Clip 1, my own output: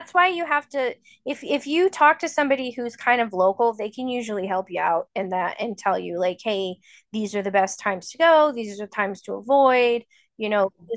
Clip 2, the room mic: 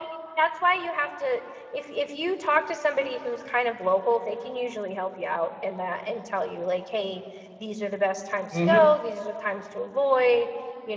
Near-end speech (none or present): present